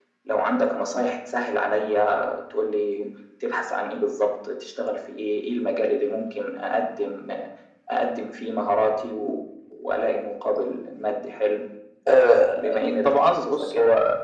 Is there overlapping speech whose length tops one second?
Yes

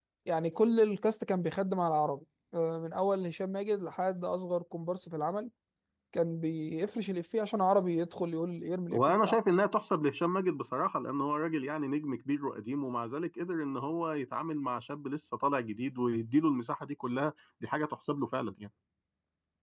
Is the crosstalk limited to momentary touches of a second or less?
Yes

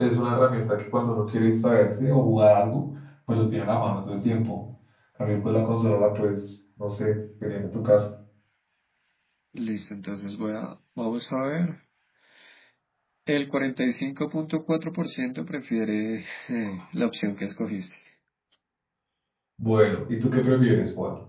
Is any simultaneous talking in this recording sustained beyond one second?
No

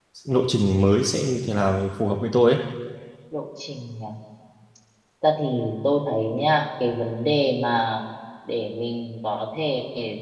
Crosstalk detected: No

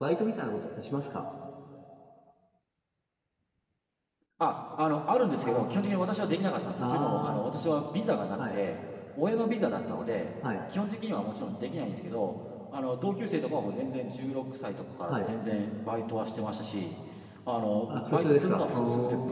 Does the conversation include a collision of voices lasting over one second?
Yes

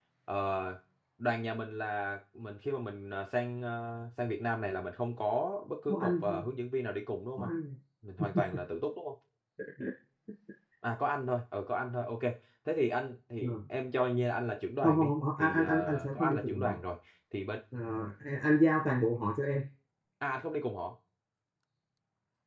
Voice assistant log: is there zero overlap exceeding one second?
No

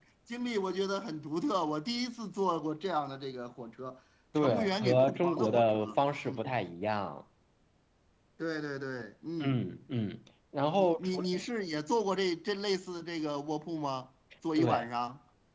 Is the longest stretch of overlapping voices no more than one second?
No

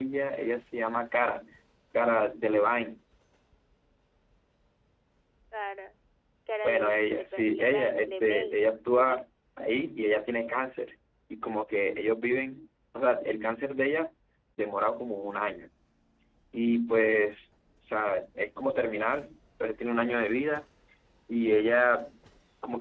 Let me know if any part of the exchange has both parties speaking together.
Yes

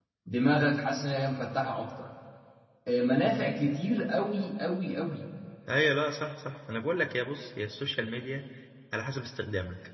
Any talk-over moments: No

